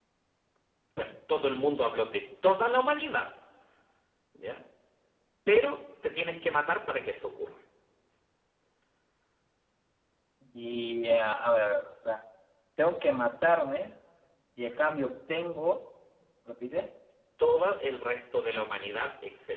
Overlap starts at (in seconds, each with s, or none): none